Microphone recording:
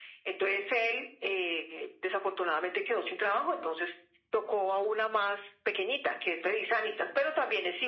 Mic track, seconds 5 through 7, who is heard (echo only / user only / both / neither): echo only